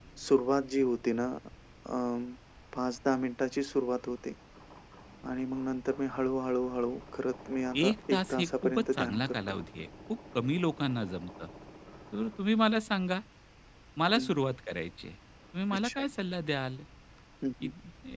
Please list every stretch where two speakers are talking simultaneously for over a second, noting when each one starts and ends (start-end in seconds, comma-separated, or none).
7.8-9.3